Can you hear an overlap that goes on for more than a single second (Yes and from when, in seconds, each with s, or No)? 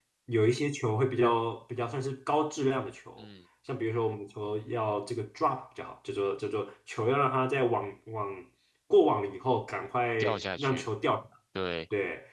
No